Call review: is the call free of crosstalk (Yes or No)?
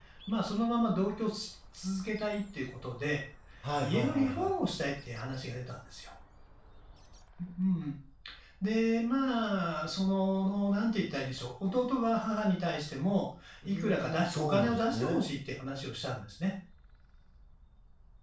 No